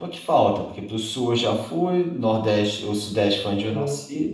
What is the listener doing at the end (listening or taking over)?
listening